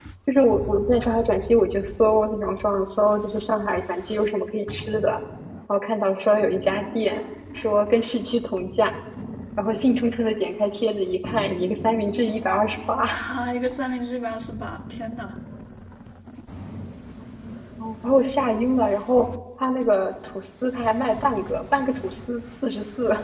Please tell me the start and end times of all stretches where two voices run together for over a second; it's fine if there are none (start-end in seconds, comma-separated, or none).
none